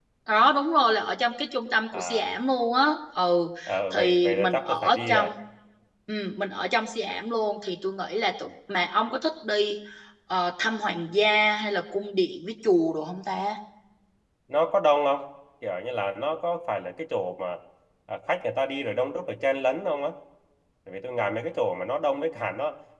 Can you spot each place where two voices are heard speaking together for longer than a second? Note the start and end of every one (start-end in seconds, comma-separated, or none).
3.9-5.3